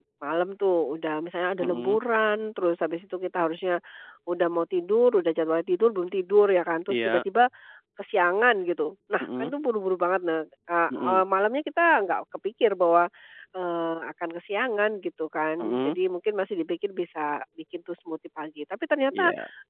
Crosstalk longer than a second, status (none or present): none